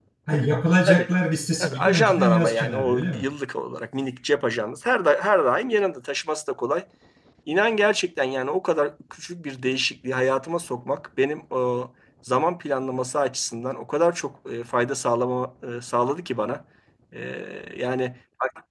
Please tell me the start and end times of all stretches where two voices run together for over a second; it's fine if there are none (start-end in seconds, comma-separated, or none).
1.6-3.2